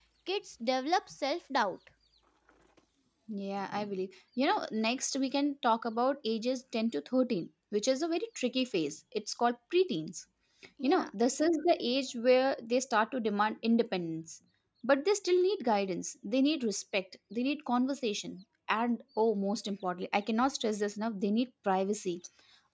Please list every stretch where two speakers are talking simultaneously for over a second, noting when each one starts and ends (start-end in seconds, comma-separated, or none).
none